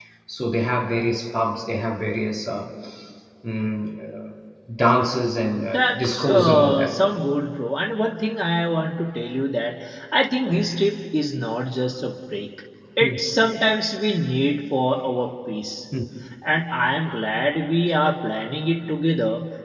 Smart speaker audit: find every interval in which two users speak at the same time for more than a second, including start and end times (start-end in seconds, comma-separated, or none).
5.6-6.9